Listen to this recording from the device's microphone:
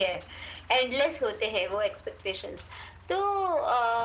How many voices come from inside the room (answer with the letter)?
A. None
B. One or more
A